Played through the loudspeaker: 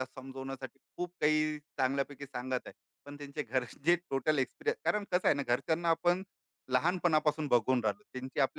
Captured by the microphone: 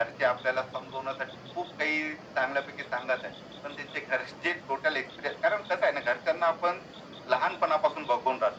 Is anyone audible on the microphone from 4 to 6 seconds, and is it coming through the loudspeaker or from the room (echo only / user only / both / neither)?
echo only